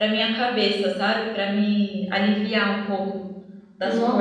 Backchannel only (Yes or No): No